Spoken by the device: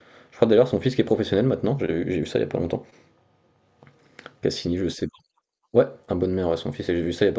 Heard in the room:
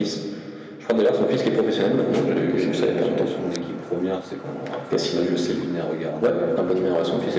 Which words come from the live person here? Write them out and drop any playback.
quand je jouais contre les équipes des centres de formation, il y avait souvent l'équipe première, c'est quand, après l'entraînement, qui venait regarder, mais euh,

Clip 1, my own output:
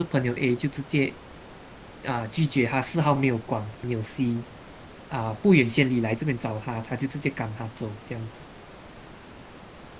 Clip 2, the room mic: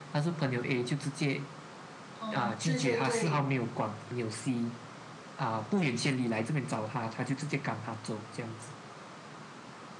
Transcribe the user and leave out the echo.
哦，对对对。

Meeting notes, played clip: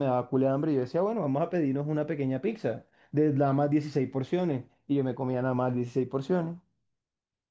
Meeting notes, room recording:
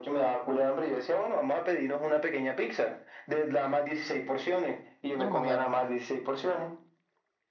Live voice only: ¿No te lo mandaron?

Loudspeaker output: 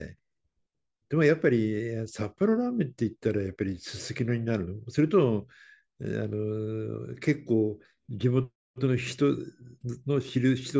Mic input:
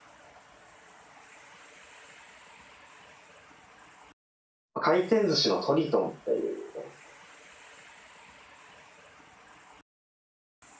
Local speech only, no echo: 回転寿司のトリトンっていうお店。

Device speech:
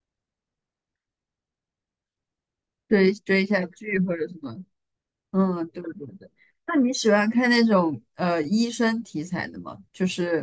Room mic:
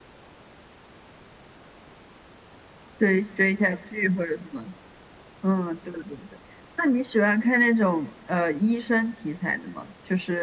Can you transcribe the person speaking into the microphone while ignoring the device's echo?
none

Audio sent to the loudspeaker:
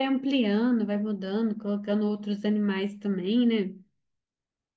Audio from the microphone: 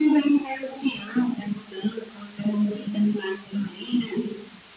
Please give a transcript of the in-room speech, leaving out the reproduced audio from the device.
none

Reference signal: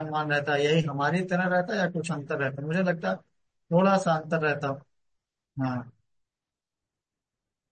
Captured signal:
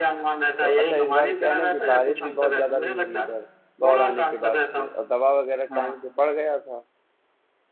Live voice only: तो अच्छा इस बार क्या है ना कि बारिश भी बहुत ज्यादा नहीं हुई इधर बौर आने के बाद से और दवा वगैरह टाइम से पड़ गया था

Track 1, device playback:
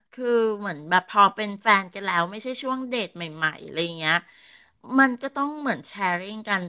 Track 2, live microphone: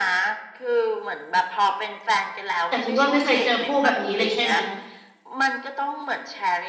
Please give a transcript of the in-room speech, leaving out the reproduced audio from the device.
แต่คุณอ้วนไม่เคยเจอผู้แบบนี้เลยใช่ไหม

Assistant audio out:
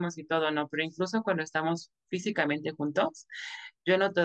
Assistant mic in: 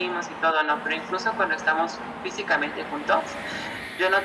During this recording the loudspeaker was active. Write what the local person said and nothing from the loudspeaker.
none

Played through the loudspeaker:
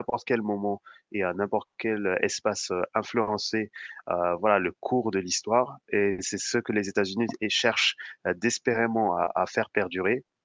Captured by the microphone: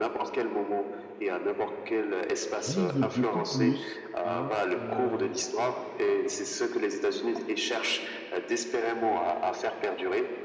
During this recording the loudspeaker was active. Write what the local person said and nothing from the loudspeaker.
vise beaucoup plus à euh,

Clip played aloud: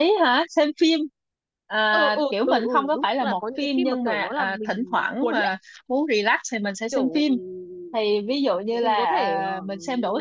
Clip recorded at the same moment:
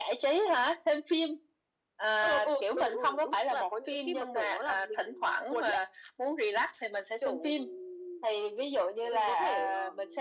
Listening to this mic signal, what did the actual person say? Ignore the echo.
none

